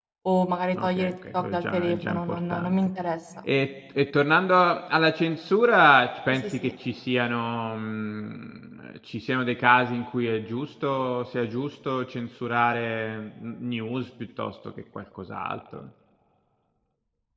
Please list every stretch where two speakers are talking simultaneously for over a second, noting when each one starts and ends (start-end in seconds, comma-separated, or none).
0.8-2.8